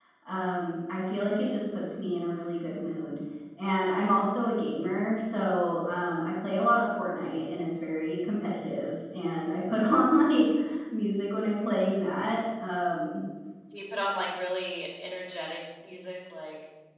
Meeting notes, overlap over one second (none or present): none